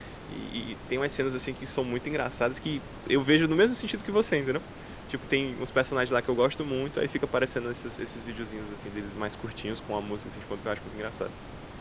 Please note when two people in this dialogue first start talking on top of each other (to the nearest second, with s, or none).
none